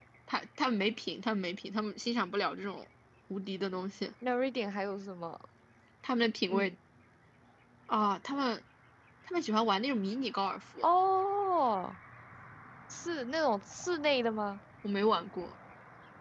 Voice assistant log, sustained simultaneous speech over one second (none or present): none